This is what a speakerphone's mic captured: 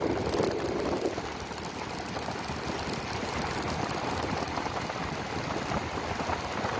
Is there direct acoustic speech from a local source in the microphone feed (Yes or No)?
No